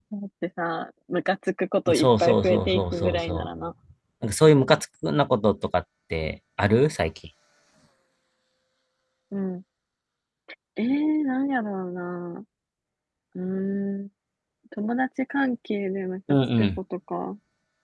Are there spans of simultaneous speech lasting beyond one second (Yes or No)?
Yes